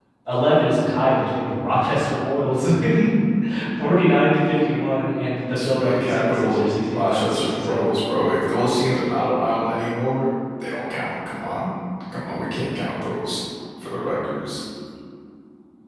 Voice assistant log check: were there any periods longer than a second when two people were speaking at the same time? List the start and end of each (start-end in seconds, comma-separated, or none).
5.5-7.9